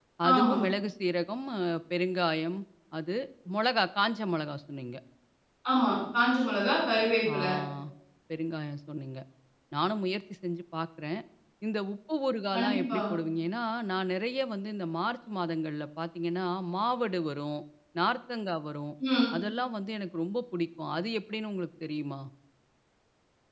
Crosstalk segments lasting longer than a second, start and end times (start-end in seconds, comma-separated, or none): none